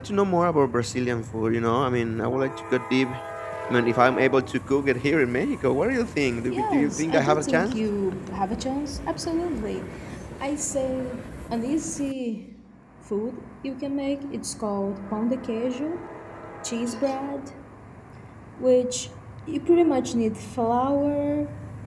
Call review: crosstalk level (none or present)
present